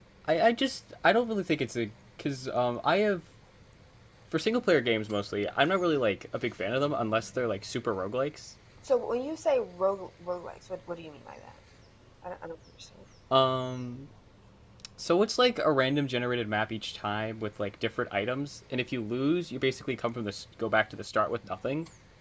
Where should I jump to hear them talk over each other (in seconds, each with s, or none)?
none